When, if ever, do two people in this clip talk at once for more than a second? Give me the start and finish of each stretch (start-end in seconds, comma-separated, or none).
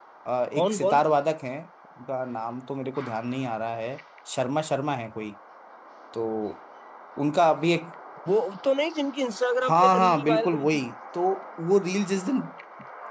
9.6-10.8